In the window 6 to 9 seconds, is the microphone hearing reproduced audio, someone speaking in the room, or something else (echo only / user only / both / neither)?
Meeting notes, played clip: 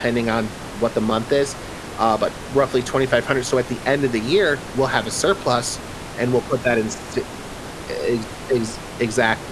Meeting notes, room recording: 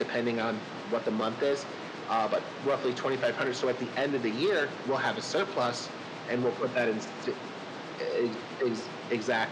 echo only